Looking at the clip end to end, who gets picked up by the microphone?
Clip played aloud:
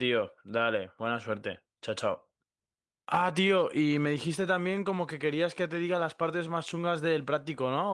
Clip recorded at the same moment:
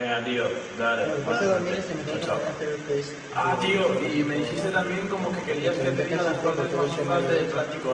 both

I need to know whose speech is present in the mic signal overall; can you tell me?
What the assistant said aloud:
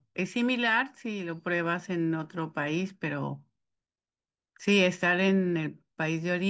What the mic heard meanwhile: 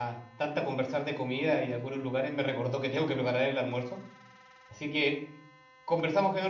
user only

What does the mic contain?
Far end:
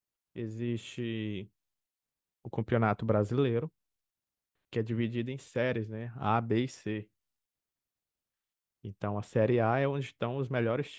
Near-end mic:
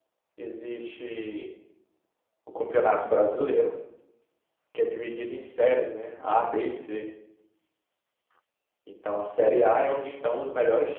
echo only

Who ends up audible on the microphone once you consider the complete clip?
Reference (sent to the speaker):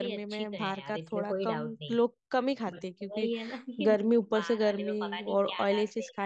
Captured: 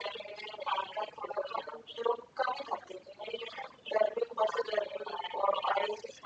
echo only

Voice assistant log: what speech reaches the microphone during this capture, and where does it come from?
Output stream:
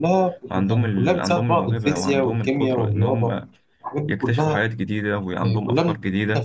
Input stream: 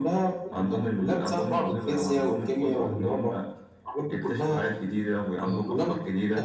echo only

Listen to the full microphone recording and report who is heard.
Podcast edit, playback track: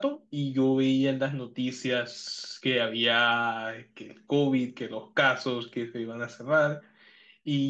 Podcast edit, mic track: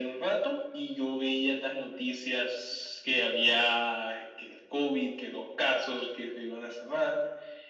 echo only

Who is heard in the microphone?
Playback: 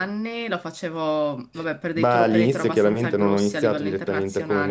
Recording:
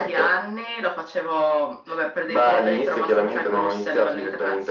echo only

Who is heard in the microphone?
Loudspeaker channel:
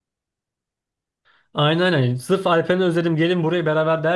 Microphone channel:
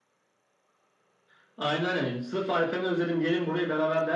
echo only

